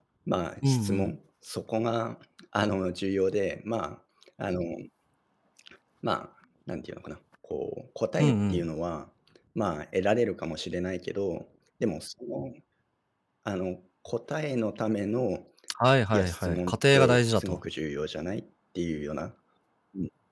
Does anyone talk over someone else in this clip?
Yes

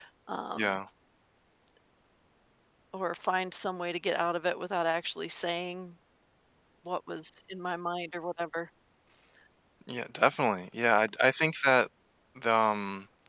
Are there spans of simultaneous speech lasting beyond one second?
No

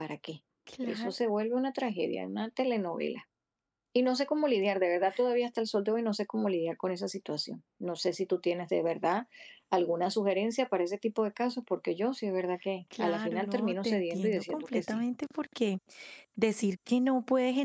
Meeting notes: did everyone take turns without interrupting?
No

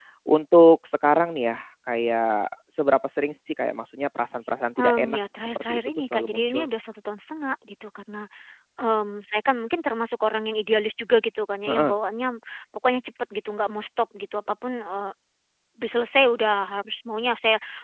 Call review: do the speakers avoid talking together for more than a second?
No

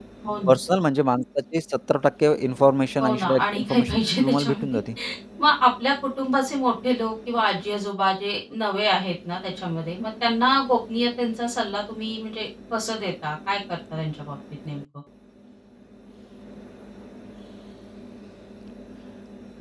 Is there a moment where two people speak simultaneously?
Yes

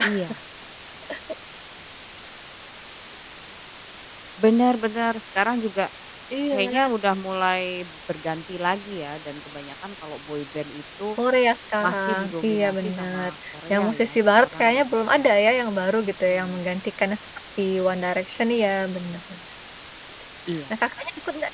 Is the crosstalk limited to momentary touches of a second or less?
No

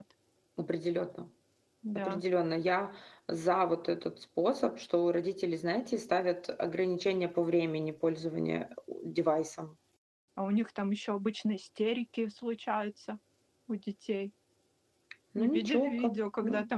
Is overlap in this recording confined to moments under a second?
No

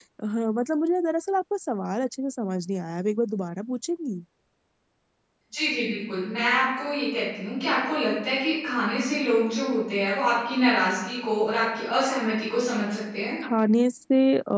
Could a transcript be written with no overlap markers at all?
Yes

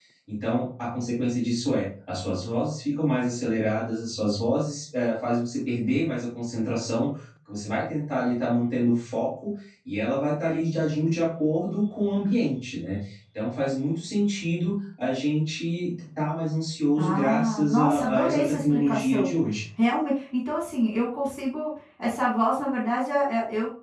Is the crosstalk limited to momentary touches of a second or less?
No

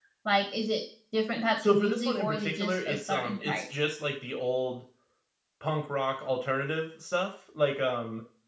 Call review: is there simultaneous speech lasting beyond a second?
Yes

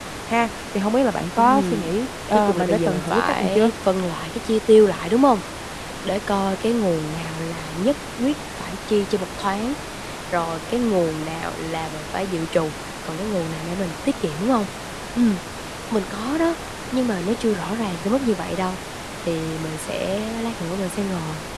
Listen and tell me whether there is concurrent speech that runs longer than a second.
Yes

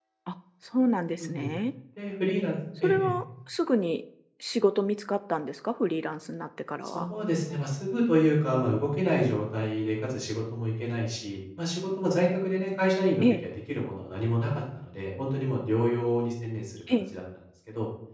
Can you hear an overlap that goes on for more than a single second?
No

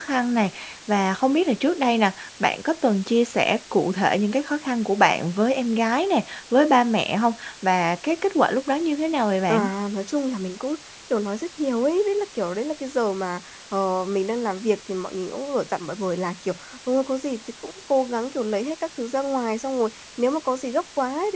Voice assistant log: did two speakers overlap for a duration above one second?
No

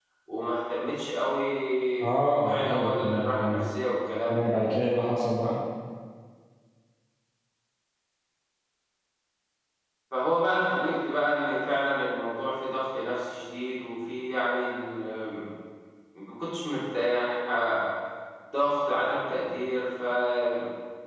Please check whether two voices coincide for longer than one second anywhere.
Yes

